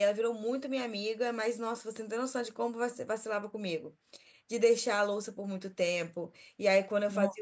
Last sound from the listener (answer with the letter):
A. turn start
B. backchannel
B